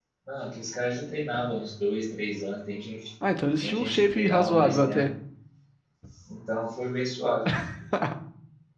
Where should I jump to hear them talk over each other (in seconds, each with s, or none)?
3.6 s